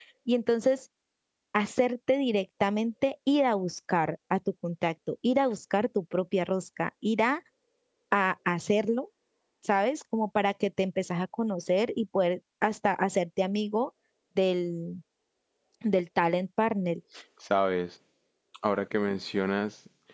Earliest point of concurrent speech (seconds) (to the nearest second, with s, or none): none